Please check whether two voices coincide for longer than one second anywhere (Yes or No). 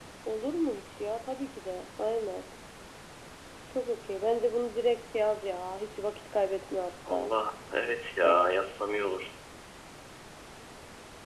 No